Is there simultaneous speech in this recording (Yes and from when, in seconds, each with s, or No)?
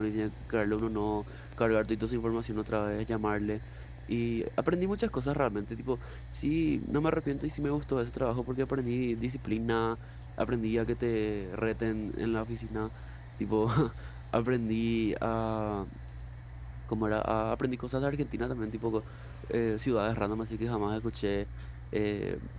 No